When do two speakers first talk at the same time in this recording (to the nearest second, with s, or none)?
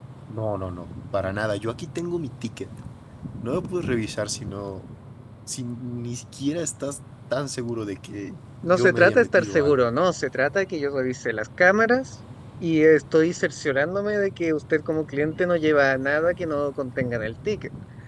9 s